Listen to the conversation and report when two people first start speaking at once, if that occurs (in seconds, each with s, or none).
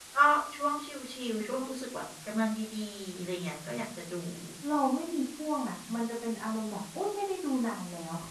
none